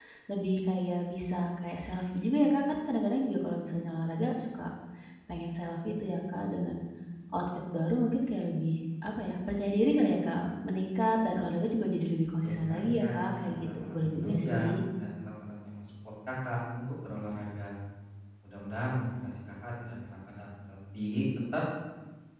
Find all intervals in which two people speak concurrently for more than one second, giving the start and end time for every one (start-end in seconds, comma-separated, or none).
12.4-14.8